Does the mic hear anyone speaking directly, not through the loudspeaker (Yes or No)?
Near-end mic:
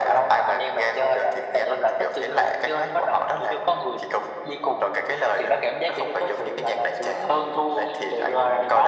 No